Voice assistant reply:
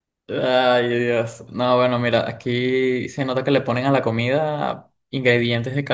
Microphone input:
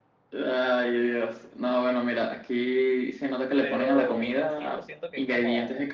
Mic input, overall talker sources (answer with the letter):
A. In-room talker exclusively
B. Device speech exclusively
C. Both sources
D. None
C